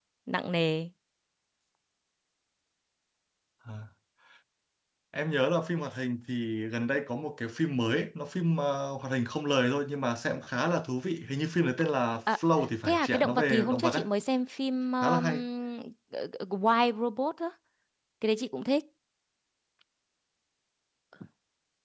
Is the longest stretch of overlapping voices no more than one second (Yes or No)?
No